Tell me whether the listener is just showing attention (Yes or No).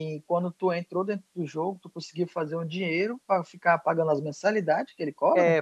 No